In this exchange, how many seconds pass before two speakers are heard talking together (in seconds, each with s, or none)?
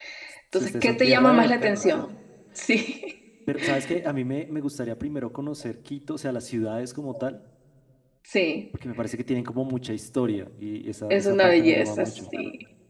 0.5 s